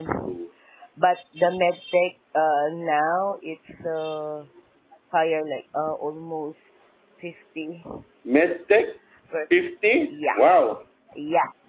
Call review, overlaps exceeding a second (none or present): none